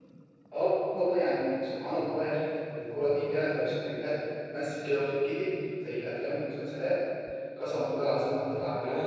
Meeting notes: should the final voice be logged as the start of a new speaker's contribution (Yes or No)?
Yes